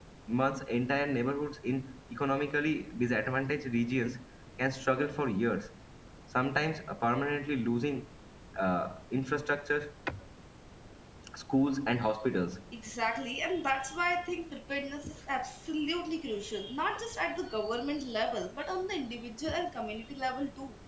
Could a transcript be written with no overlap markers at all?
Yes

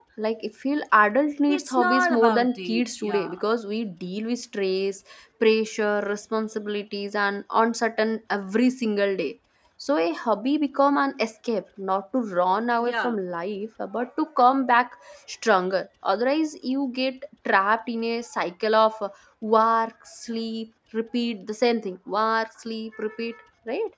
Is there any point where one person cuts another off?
Yes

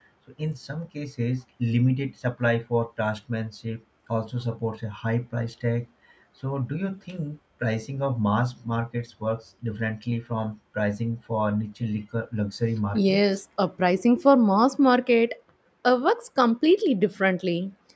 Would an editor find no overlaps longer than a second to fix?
Yes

